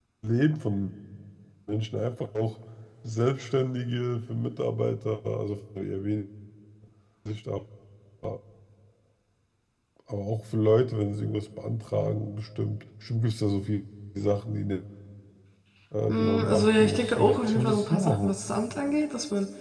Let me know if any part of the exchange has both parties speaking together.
Yes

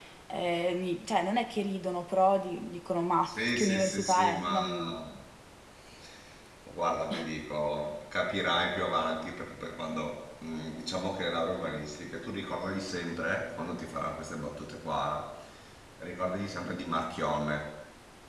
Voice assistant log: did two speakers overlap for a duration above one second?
Yes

